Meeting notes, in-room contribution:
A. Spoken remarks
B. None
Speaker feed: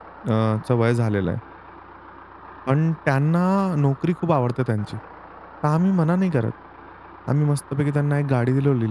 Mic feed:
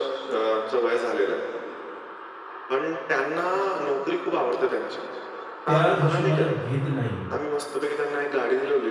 A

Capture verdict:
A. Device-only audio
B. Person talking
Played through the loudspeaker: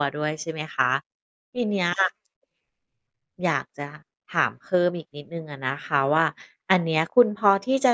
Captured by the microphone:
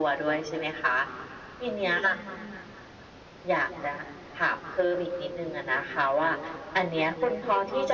A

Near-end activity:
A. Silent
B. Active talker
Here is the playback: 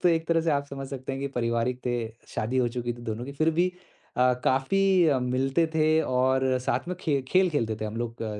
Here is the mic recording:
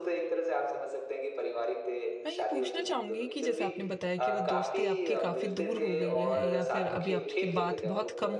B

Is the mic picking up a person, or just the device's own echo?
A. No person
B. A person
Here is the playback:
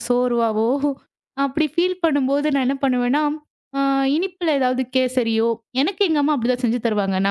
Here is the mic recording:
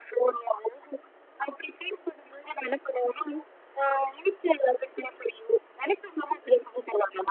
A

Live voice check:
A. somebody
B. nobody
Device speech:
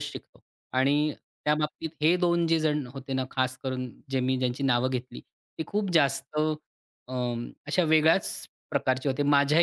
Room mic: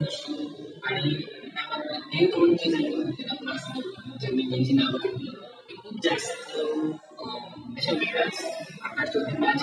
B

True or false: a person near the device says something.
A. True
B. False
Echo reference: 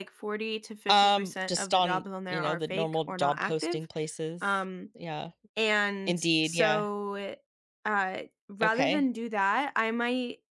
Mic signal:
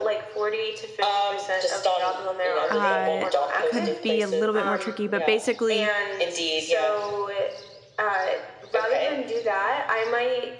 A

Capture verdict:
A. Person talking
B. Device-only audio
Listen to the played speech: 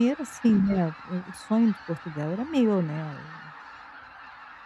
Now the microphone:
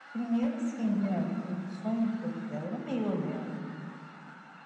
B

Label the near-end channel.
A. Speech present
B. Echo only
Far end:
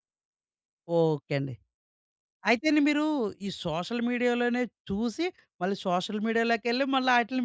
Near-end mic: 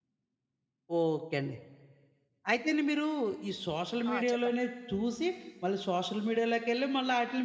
A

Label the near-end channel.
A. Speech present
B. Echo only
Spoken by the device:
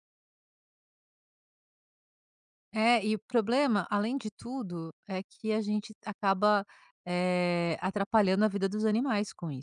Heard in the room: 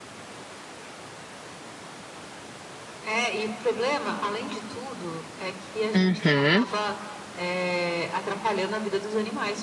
A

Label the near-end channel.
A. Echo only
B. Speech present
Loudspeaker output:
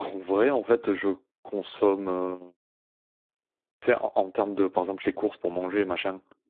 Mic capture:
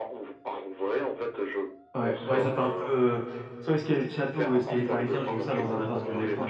B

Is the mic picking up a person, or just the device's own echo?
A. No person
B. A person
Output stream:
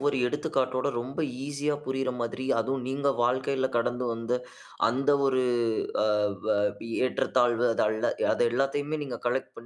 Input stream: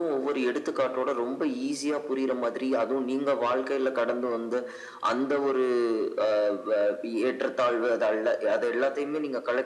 A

